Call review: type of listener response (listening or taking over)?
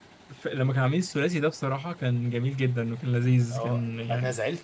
taking over